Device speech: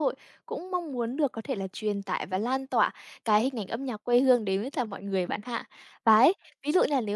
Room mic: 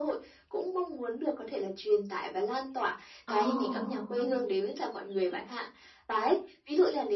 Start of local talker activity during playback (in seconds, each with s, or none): 3.3 s